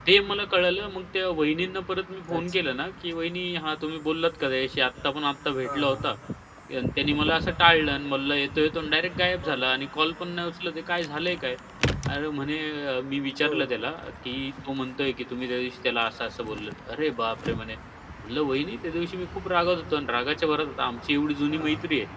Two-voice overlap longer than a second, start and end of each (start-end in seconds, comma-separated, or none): none